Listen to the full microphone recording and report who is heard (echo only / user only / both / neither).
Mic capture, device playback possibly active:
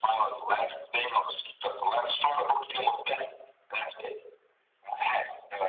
echo only